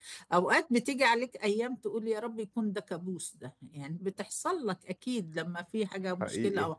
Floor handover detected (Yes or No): No